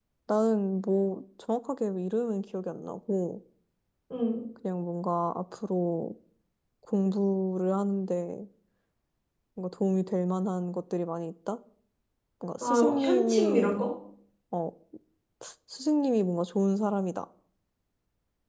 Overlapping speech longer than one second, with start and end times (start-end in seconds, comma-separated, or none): 12.6-13.8